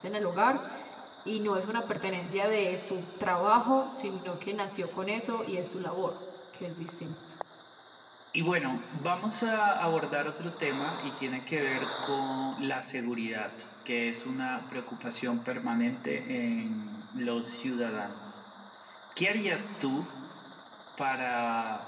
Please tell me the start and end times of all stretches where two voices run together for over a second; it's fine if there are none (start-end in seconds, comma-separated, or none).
none